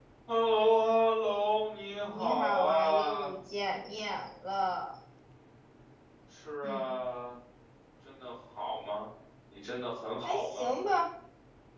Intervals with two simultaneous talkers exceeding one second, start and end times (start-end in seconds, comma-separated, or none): 2.0-3.3